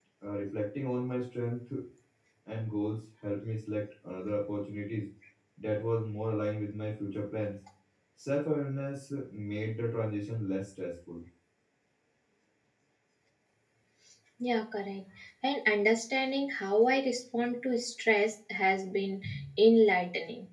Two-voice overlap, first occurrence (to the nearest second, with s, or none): none